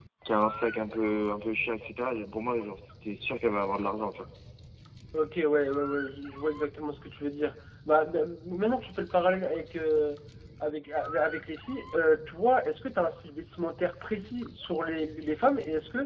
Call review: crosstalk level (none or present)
none